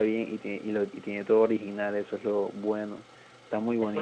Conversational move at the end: taking over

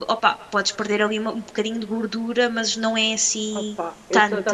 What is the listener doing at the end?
taking over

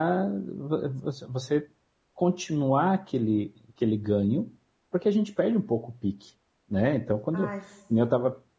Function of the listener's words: listening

